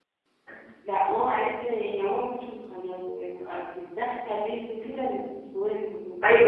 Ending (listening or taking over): taking over